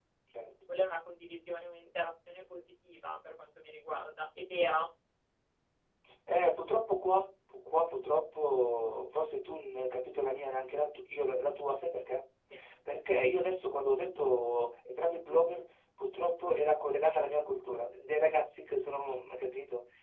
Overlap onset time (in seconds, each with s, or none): none